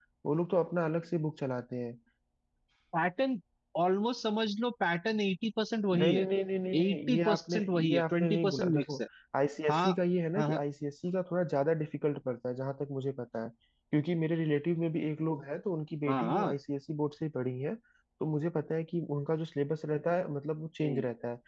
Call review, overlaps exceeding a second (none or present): present